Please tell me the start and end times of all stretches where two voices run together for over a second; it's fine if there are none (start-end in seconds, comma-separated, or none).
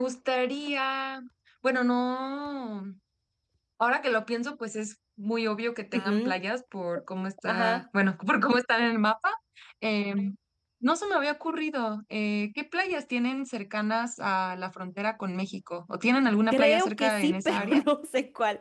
16.5-17.8